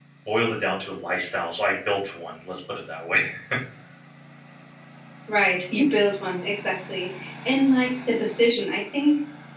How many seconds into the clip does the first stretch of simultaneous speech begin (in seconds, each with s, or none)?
none